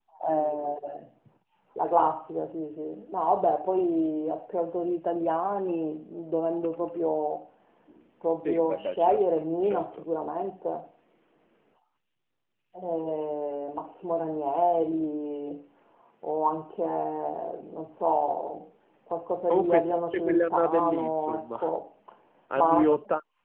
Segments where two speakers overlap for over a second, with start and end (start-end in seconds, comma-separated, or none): 8.4-10.0, 19.5-21.6